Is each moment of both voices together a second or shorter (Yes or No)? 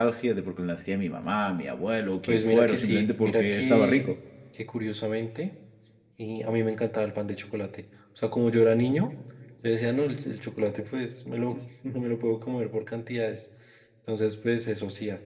No